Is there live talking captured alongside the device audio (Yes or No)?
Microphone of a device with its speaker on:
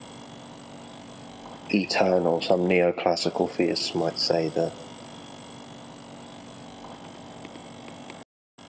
Yes